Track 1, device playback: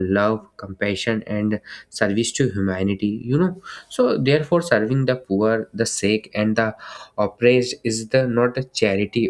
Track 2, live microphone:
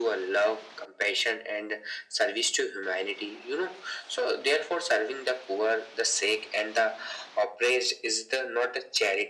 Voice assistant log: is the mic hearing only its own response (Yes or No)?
Yes